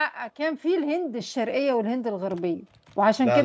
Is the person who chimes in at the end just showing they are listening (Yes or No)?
Yes